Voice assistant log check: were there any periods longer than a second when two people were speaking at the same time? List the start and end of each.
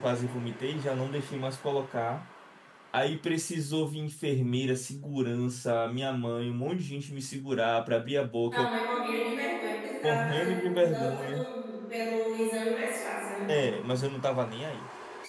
10.0-11.4

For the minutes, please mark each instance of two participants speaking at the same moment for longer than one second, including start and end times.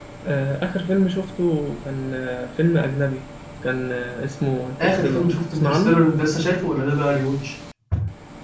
4.8-6.0

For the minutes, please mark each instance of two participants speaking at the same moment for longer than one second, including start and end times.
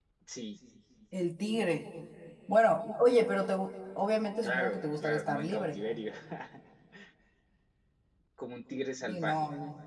4.4-5.8

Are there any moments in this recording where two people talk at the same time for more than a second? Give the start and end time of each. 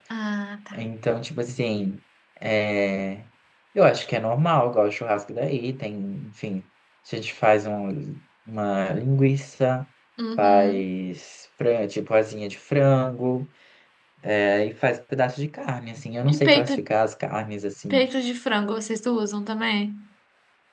none

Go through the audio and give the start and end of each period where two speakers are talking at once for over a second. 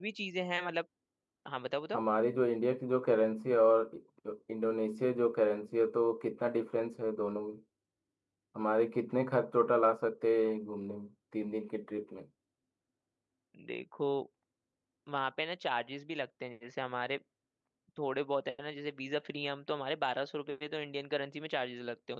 none

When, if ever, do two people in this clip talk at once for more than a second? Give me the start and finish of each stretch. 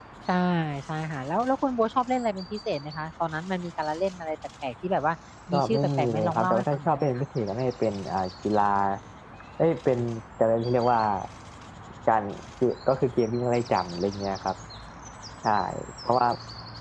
5.5-7.2

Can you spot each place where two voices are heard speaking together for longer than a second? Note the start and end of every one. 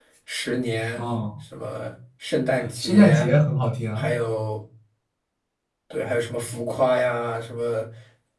none

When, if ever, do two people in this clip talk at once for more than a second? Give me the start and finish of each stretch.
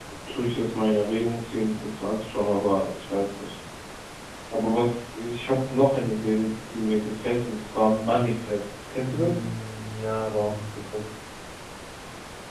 none

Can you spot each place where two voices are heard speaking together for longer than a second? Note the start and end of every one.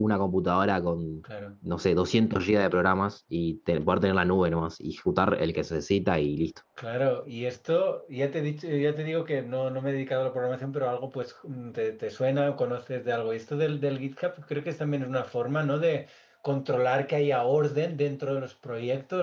none

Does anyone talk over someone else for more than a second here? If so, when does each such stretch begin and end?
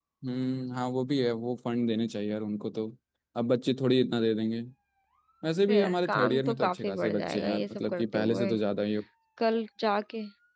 5.7-8.5

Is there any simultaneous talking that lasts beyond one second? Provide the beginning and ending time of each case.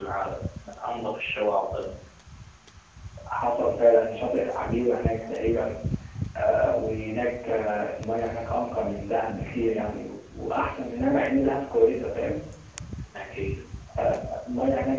none

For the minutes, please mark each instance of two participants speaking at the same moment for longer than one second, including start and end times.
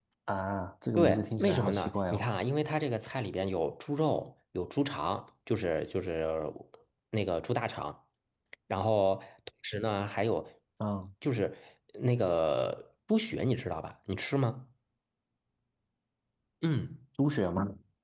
1.0-2.2

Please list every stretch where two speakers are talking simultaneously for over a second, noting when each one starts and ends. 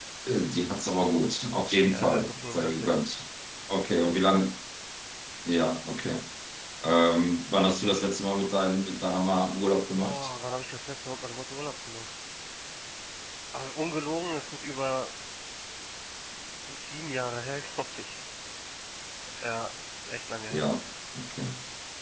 1.9-3.1

